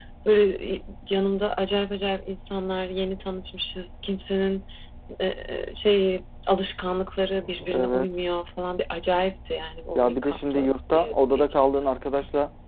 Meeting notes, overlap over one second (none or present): present